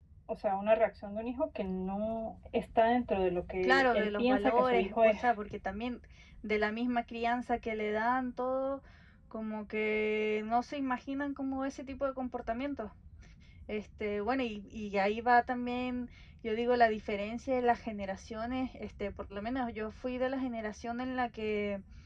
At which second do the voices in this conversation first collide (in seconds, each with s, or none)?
3.6 s